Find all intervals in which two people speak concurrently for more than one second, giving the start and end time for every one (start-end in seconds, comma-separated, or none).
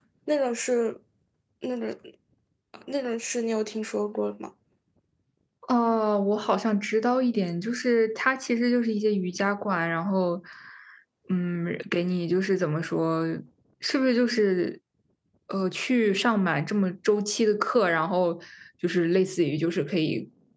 none